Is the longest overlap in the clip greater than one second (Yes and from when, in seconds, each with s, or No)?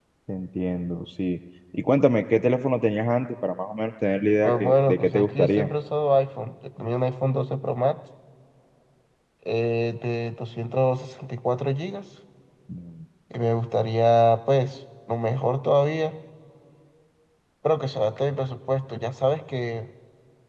Yes, from 4.4 s